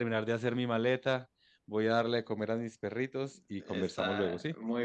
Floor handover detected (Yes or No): Yes